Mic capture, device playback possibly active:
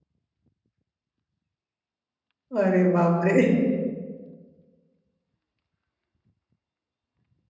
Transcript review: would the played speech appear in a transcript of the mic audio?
No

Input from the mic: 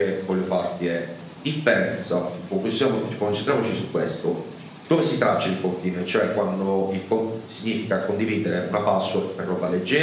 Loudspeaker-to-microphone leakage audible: Yes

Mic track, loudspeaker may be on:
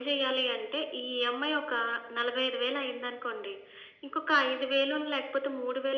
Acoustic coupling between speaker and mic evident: Yes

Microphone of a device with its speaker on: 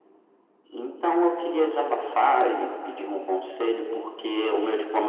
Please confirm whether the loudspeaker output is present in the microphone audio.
Yes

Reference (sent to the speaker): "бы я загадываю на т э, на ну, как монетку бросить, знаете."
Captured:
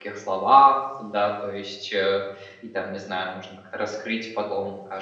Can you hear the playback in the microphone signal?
No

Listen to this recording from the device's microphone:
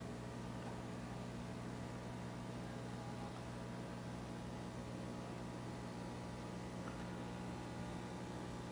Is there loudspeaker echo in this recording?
No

